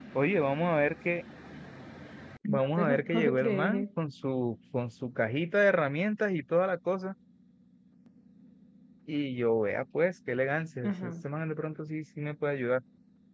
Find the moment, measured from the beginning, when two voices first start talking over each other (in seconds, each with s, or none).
2.5 s